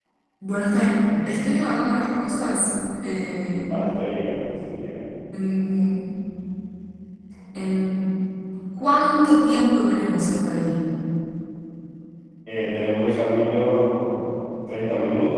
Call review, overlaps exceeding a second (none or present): none